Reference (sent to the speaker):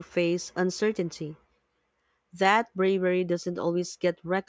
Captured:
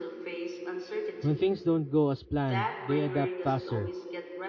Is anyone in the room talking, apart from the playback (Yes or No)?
Yes